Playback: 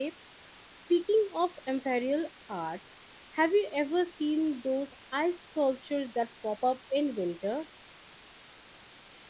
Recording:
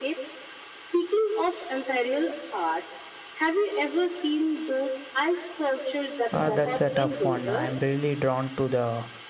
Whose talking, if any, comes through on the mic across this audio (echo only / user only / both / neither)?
both